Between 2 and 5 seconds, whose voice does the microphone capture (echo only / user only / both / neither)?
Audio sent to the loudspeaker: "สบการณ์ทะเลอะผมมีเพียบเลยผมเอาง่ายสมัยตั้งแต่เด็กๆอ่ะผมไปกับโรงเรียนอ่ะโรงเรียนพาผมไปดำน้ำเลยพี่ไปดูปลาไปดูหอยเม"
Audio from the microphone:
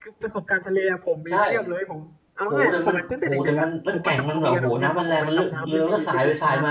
both